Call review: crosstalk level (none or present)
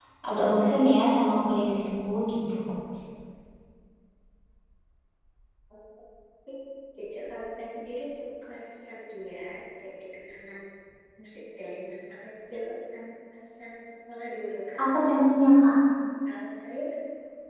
none